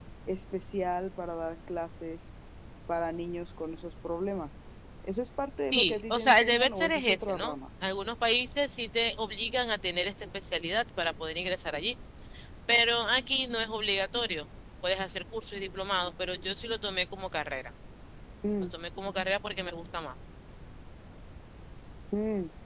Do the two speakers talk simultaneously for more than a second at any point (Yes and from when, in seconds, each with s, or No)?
Yes, from 5.6 s